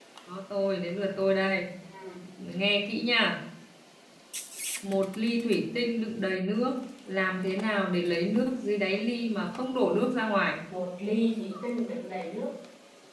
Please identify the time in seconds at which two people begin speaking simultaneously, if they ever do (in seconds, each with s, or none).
none